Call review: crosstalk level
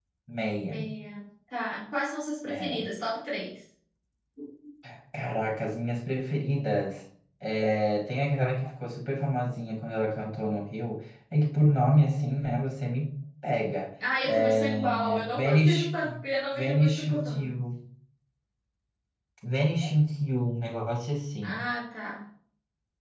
present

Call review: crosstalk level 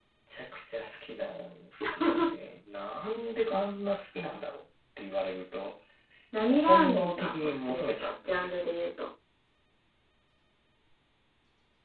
present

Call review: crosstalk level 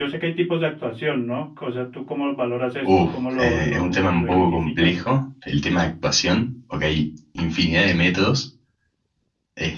present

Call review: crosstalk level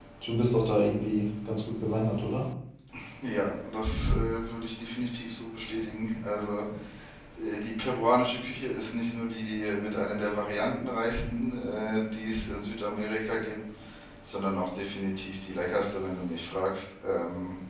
none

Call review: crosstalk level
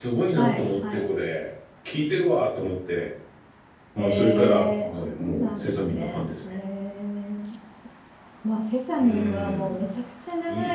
present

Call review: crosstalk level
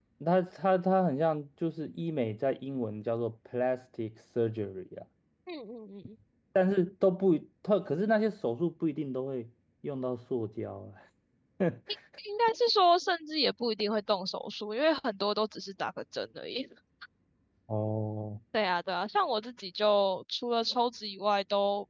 none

